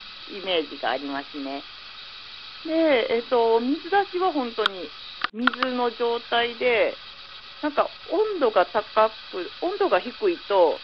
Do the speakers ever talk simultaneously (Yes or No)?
No